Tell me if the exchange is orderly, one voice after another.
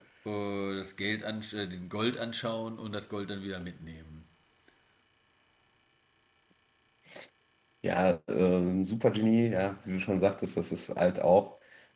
Yes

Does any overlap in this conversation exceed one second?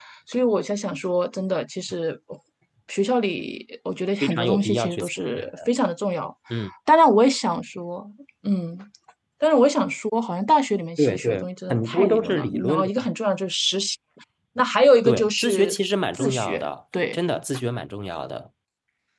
Yes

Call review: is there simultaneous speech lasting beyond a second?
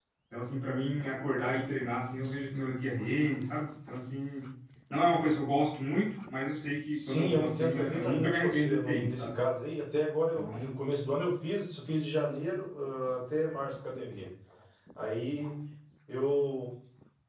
Yes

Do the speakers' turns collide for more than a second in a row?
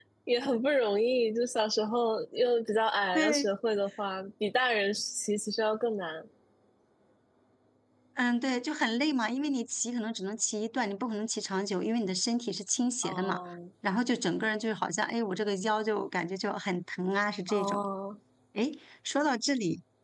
No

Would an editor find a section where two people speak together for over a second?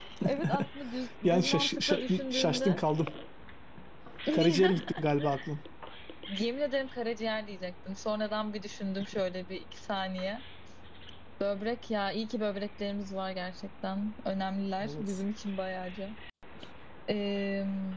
Yes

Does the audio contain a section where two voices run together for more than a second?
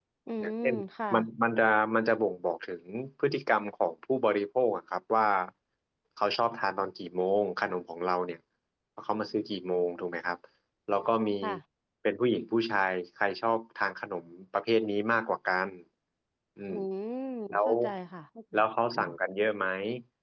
No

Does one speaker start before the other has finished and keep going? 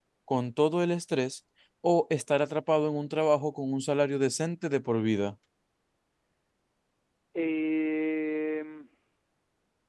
No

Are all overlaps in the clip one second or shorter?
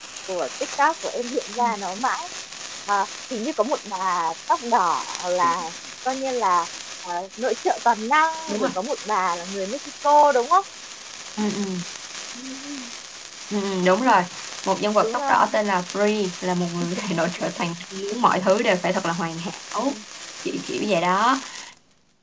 Yes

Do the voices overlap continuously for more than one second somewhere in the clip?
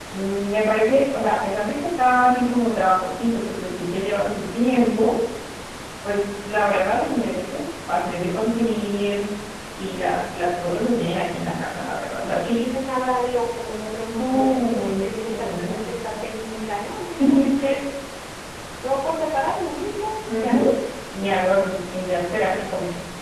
Yes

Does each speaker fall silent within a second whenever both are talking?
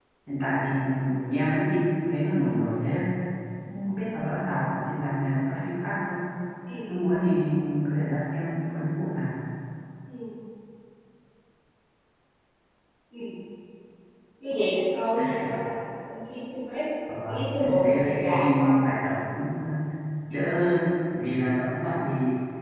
No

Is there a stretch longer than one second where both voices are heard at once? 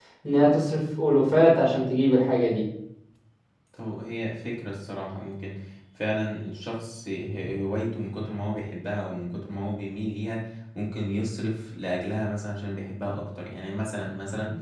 No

